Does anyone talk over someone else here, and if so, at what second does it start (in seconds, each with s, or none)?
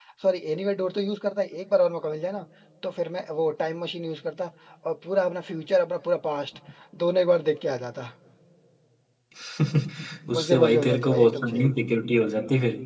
10.3 s